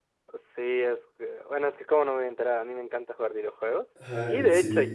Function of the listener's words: listening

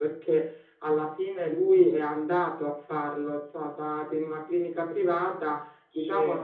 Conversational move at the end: listening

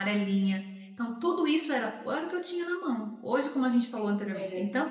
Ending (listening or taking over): listening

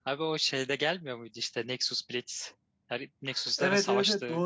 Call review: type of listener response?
taking over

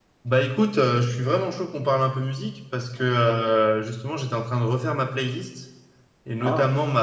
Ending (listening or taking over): listening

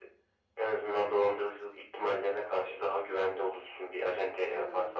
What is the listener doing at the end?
taking over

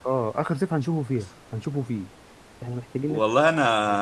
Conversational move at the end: taking over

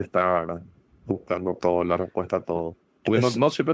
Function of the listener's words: listening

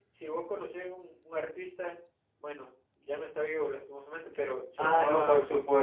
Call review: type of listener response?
taking over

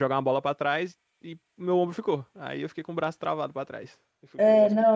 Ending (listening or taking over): taking over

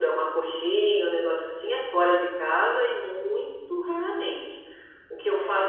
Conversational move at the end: listening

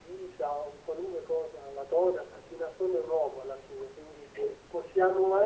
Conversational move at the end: listening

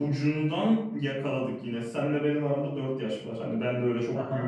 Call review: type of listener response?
listening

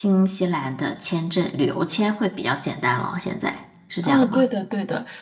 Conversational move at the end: taking over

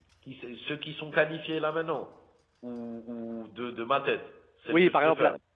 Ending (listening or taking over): taking over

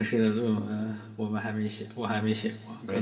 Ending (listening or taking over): taking over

